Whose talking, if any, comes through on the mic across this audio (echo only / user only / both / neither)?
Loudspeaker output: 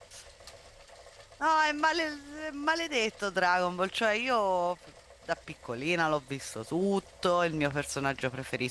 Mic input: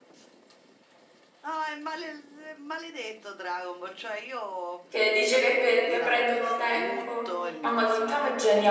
both